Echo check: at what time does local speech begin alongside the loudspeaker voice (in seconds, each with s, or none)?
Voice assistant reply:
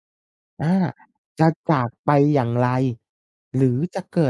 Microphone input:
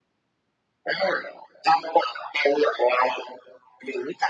none